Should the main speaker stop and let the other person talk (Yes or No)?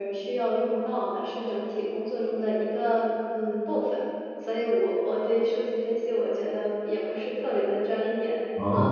No